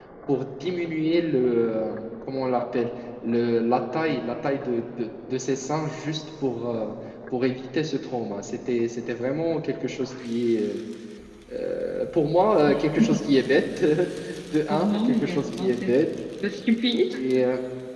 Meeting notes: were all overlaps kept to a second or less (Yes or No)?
No